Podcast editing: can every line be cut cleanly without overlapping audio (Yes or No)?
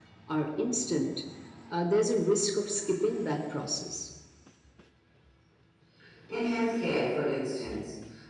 Yes